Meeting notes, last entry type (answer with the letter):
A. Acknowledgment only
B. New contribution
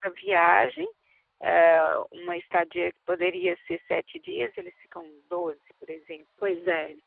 B